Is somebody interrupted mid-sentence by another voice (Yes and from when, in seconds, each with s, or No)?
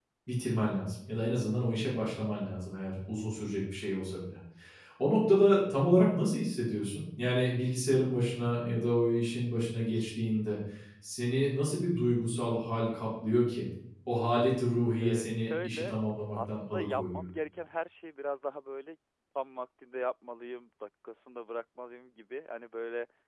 Yes, from 15.0 s